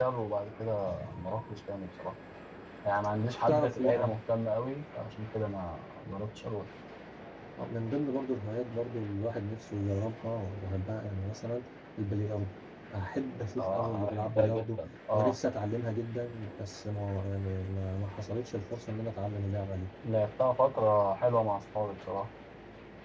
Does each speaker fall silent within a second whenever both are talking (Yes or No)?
No